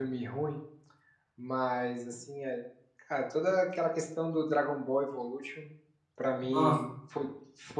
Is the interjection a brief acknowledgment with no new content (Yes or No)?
Yes